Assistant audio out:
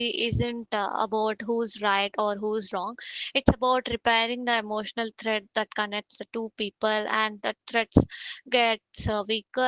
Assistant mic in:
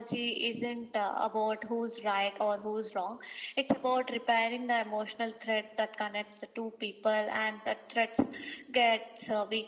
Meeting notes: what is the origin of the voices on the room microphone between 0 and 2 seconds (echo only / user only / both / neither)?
echo only